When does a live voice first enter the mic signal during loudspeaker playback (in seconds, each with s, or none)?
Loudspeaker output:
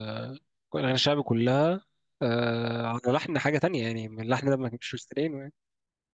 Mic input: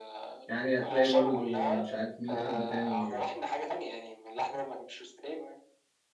0.5 s